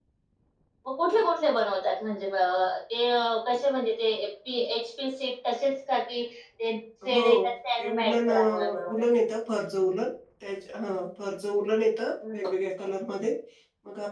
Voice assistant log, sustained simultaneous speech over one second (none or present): present